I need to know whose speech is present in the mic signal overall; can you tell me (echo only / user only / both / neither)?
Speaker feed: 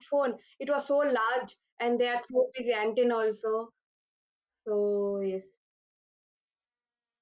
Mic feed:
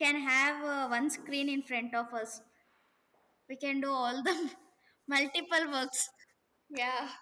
user only